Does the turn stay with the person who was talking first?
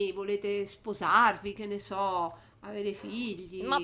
No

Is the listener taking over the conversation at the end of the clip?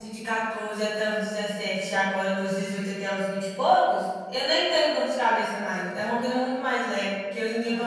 No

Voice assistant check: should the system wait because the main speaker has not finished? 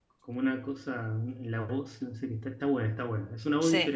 No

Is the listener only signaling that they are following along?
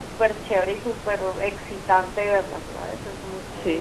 No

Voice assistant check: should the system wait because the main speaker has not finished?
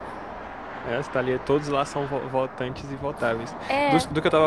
Yes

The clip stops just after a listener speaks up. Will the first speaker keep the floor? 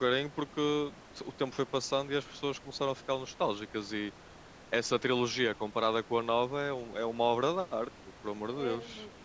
No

